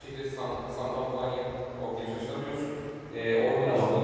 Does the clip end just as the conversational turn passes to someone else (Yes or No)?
No